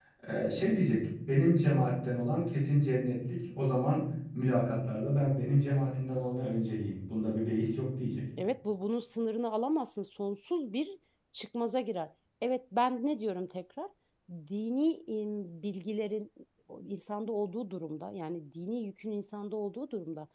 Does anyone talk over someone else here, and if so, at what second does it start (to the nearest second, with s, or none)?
none